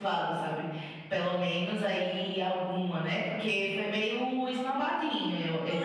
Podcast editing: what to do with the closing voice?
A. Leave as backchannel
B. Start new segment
B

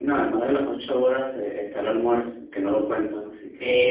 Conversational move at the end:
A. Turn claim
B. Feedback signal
A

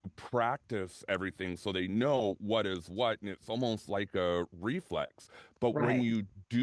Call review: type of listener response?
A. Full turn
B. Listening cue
B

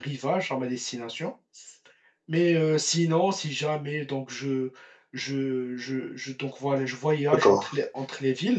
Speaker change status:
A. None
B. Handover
A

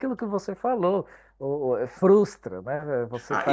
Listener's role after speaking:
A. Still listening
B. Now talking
B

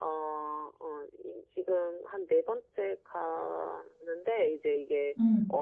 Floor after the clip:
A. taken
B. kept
B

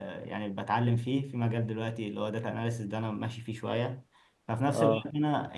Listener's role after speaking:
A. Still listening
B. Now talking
A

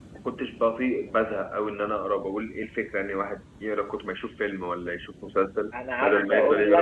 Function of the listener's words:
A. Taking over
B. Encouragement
A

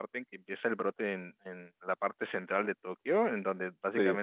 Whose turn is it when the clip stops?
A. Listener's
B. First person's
B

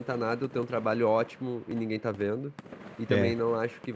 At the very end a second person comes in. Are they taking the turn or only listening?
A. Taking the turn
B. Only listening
B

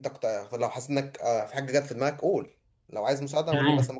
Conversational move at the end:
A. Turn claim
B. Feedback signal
A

